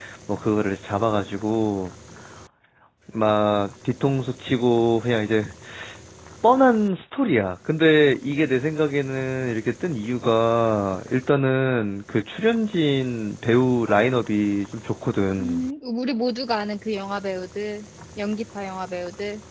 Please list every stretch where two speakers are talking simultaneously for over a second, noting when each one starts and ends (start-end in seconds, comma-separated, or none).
none